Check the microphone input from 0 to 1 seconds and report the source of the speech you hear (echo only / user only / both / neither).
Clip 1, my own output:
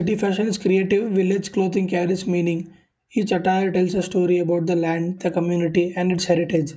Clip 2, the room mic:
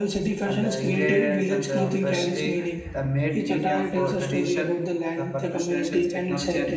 both